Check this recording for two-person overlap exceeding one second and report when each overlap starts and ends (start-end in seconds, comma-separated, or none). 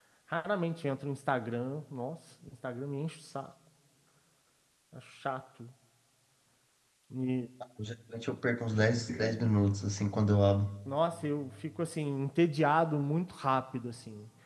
none